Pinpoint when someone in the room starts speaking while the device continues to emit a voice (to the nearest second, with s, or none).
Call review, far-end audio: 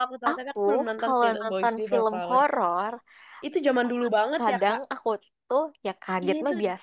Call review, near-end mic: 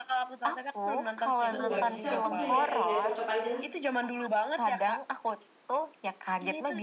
2 s